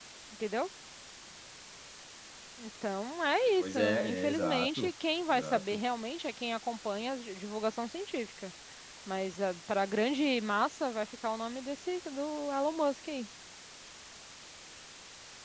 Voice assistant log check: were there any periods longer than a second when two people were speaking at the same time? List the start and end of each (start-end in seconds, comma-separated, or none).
3.6-4.9